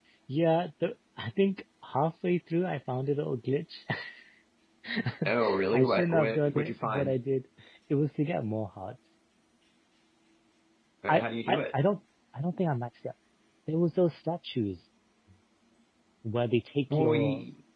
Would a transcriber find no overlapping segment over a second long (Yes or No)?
No